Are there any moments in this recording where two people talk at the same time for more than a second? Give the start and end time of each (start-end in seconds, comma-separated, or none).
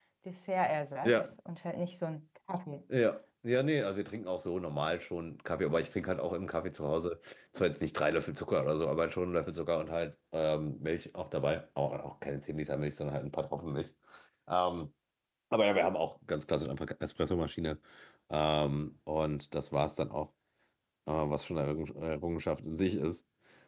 none